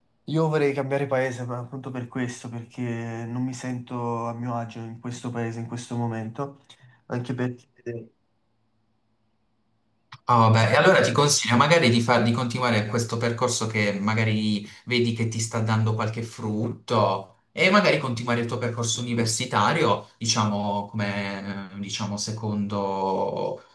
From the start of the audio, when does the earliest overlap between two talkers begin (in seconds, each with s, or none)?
none